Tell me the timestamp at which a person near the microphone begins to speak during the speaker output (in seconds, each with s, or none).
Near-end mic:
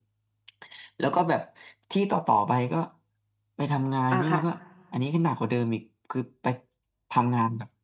4.1 s